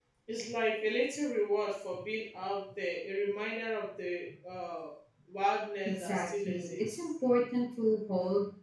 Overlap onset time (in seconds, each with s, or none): 5.8 s